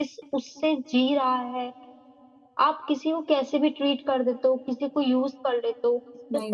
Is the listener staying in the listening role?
No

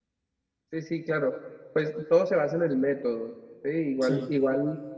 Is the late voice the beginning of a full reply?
No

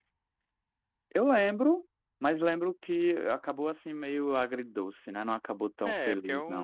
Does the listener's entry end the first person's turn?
Yes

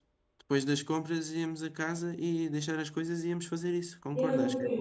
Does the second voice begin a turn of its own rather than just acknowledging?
Yes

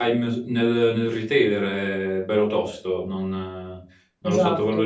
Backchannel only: Yes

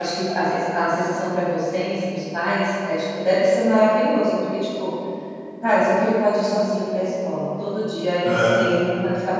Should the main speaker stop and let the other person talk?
No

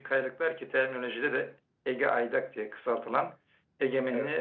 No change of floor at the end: Yes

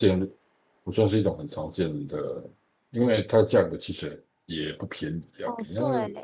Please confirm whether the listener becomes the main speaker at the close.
Yes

